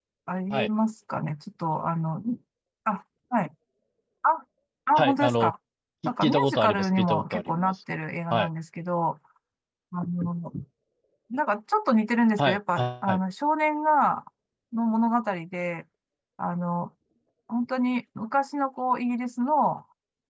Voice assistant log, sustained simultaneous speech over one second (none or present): present